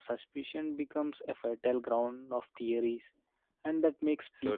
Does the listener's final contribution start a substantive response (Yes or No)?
No